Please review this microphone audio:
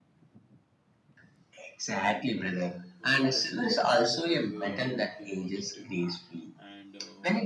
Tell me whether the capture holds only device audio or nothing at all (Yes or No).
No